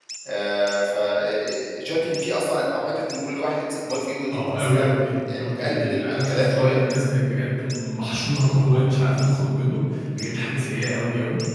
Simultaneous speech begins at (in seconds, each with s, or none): 4.3 s